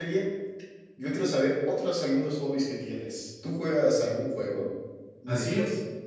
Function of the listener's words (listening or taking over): taking over